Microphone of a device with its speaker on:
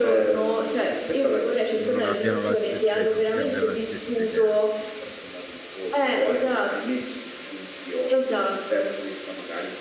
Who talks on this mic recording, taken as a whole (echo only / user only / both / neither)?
both